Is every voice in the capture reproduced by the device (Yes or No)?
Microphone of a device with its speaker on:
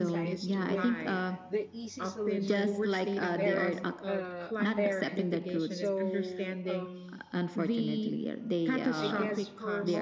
No